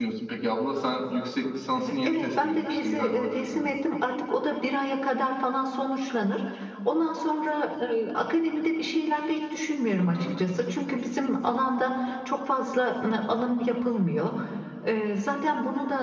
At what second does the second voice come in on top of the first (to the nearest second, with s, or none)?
2 s